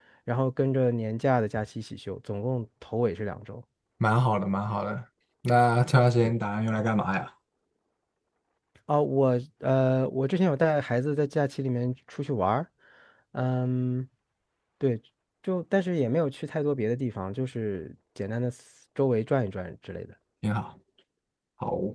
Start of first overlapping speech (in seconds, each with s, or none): none